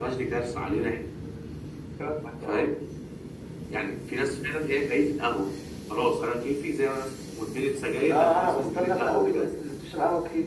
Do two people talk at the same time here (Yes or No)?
Yes